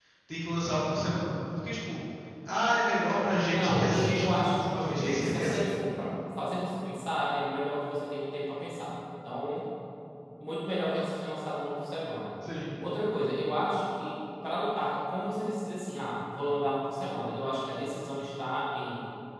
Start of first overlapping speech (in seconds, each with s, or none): 3.4 s